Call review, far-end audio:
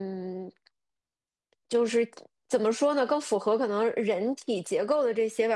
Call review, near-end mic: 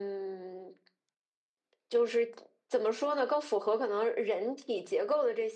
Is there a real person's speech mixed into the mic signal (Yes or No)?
No